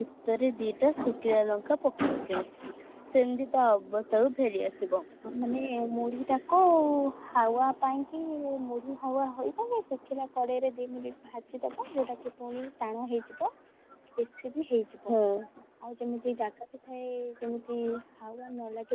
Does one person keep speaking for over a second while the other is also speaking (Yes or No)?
No